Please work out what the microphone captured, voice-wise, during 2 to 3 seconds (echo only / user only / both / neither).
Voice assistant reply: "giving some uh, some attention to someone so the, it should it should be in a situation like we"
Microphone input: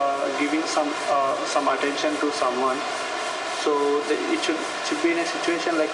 echo only